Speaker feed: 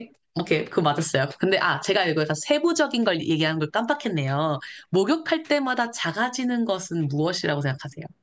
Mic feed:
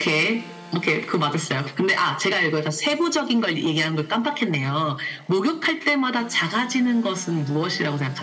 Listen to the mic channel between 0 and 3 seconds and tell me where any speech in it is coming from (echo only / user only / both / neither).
echo only